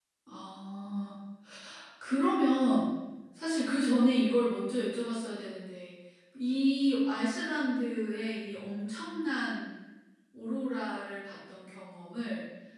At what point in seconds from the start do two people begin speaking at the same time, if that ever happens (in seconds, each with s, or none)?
none